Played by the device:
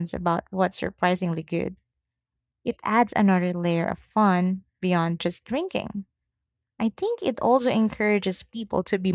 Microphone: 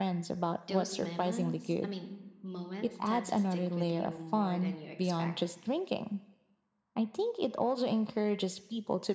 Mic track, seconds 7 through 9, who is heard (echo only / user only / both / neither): echo only